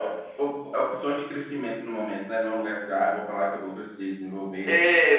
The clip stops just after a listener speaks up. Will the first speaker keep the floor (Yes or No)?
No